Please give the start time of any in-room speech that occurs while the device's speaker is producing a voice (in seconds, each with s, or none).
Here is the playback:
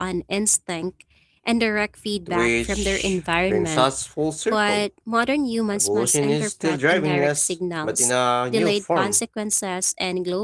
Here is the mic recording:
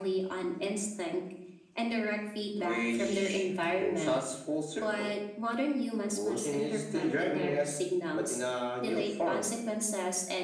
none